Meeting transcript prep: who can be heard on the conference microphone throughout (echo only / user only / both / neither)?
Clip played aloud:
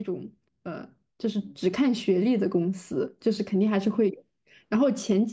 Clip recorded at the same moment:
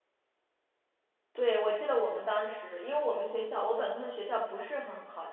user only